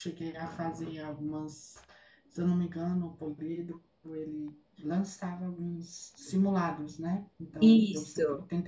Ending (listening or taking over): listening